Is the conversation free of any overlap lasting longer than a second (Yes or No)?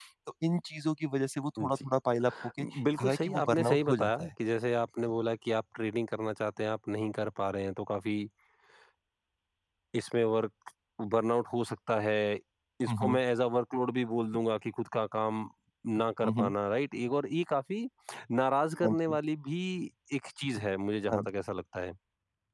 No